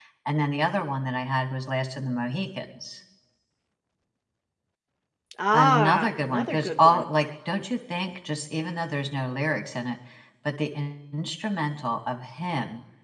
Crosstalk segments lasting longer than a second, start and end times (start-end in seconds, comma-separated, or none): 5.5-7.0